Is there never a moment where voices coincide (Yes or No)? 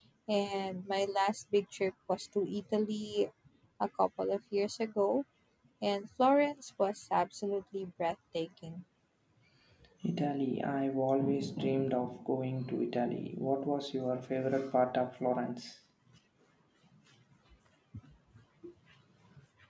Yes